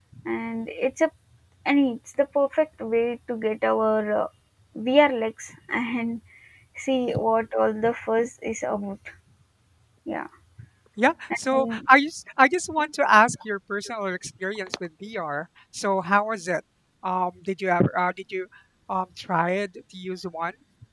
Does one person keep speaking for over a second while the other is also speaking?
No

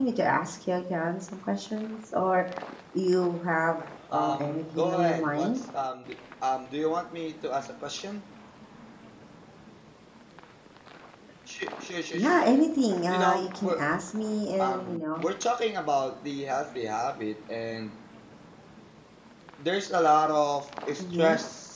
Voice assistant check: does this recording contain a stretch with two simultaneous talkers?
Yes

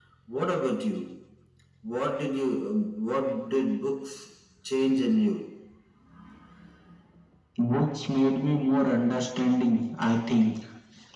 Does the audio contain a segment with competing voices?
No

